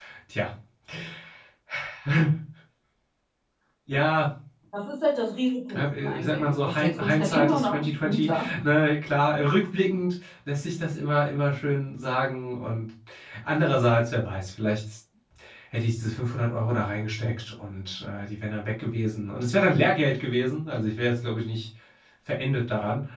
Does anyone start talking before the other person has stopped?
Yes, from 5.7 s

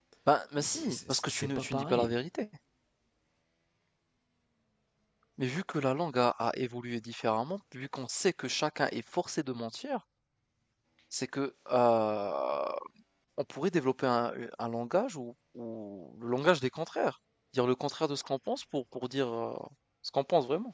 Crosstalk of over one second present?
Yes, from 0.6 s

